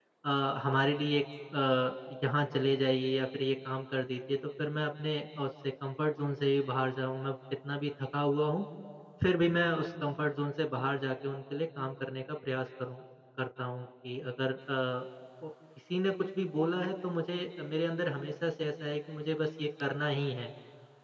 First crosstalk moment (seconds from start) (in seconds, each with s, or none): none